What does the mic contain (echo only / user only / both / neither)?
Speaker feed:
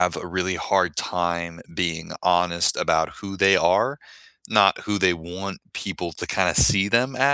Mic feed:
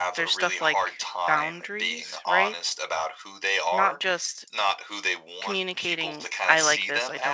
both